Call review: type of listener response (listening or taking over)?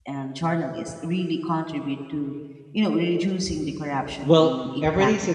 taking over